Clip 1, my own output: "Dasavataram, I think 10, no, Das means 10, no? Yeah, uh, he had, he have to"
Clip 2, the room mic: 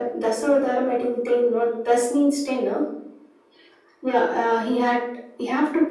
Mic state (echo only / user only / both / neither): echo only